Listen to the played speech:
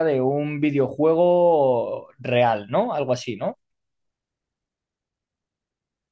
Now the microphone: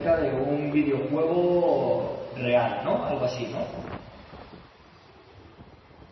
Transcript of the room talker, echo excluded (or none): none